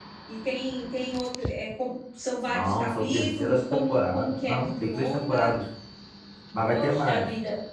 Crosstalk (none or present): present